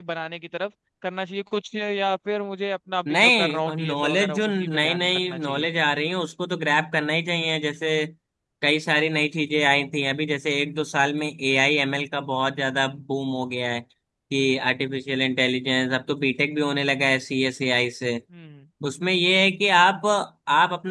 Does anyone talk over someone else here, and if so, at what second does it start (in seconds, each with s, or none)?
3.0 s